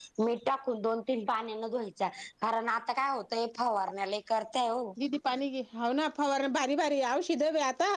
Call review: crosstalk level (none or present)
none